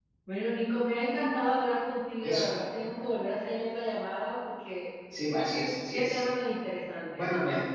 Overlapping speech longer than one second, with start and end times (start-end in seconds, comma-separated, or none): none